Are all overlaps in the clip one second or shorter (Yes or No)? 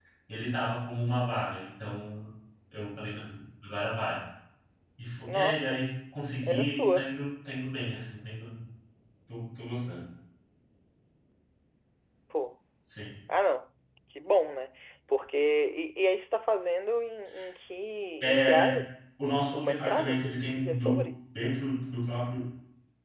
No